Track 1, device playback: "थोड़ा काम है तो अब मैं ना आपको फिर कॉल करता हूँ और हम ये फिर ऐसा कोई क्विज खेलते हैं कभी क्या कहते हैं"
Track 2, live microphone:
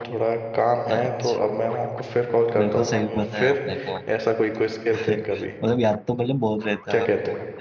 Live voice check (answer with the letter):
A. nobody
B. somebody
B